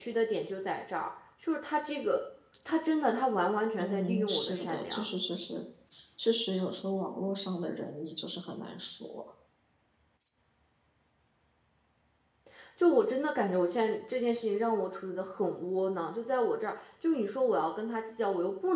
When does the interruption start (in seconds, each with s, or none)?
3.8 s